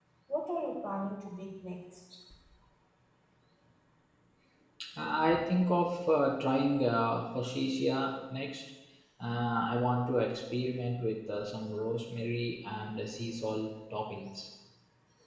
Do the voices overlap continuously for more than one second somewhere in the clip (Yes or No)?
No